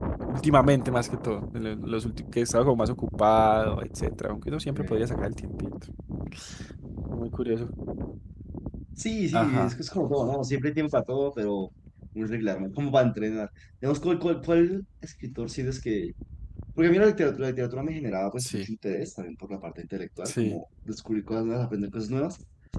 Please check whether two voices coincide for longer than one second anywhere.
No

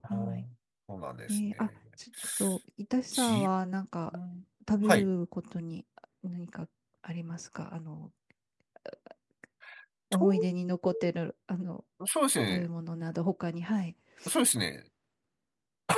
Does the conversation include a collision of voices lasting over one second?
No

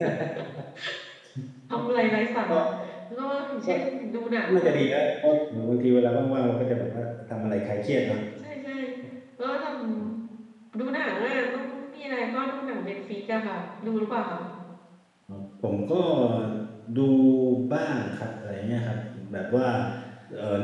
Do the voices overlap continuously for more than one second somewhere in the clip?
No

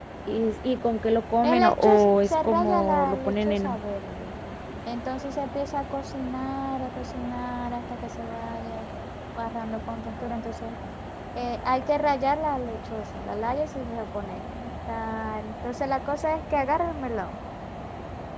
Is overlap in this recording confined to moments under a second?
No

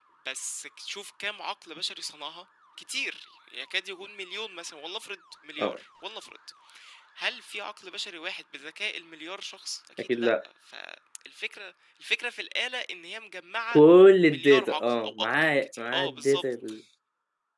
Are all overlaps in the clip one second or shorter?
No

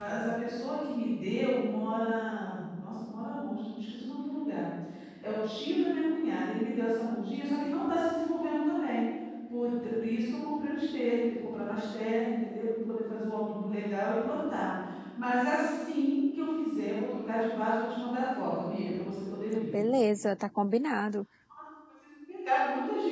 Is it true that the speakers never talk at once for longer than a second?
Yes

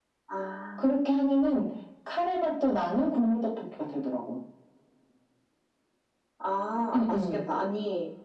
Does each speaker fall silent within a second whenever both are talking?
Yes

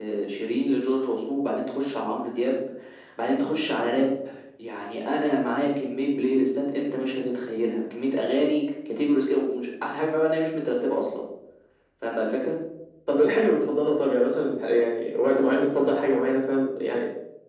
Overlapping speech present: No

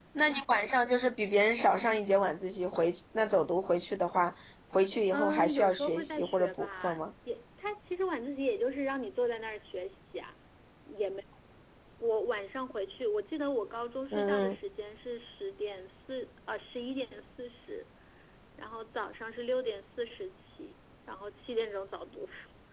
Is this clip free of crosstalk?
No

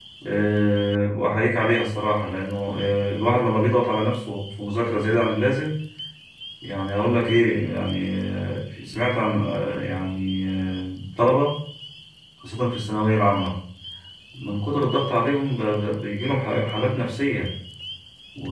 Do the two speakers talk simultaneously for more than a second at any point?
No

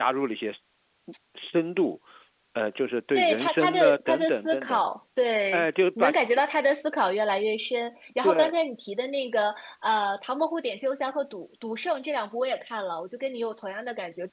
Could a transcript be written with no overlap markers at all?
No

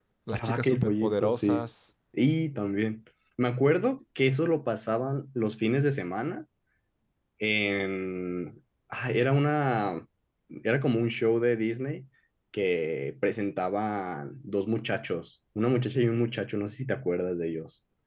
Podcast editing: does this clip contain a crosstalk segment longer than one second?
Yes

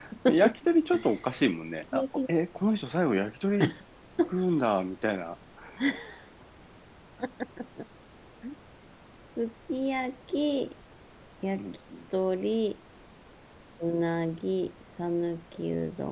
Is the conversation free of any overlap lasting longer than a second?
Yes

